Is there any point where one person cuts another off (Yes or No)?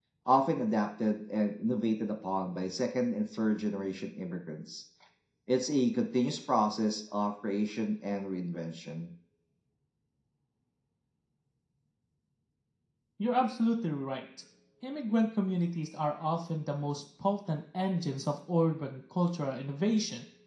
No